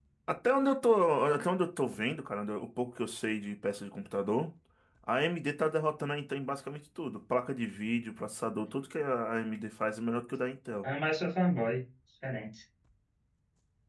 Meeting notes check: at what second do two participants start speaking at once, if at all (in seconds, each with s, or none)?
none